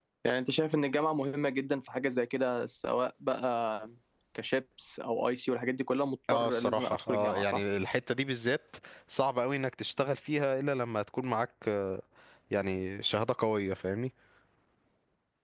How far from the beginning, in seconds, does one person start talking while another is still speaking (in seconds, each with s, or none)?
6.3 s